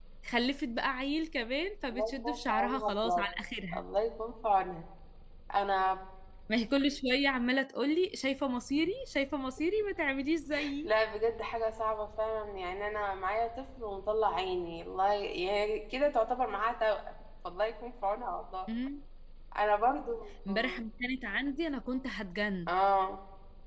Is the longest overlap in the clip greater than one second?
Yes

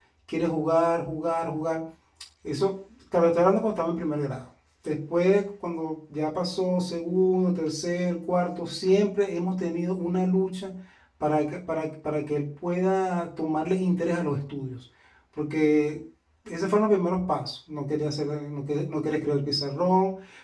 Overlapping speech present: No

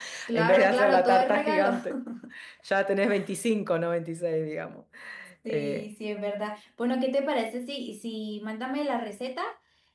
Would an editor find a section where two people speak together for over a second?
Yes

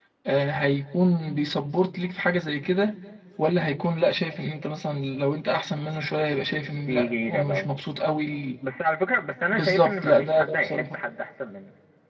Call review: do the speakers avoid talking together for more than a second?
No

